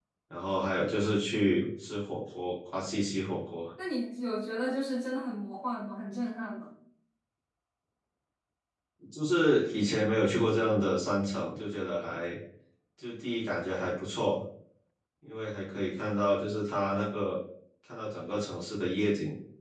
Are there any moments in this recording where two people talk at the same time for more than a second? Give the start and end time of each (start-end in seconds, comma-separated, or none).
none